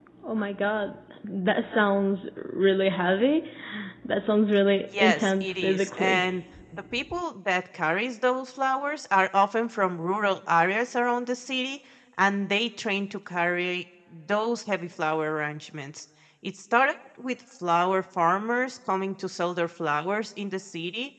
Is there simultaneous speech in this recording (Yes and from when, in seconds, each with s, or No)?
Yes, from 4.9 s